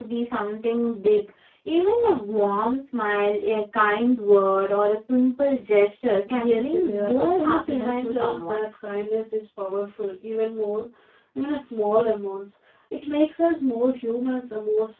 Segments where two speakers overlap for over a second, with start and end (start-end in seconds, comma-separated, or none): 6.3-8.6